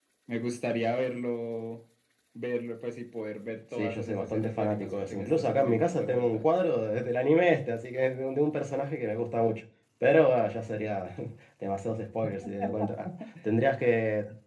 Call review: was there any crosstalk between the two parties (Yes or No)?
Yes